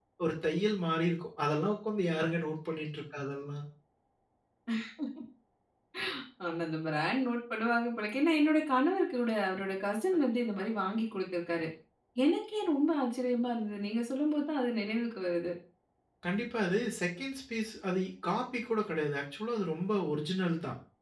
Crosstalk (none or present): none